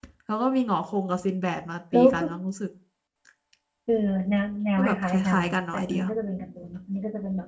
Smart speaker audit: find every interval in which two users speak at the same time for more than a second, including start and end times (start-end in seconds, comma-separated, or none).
4.8-6.0